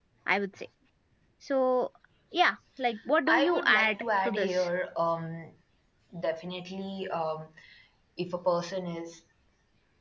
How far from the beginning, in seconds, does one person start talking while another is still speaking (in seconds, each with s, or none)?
3.3 s